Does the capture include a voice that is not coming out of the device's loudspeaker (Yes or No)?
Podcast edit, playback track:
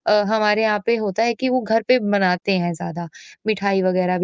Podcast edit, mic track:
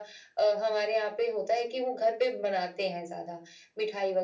No